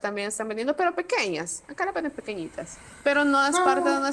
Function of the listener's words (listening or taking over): listening